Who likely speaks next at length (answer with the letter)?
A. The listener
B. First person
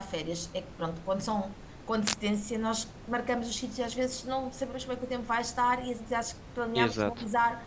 B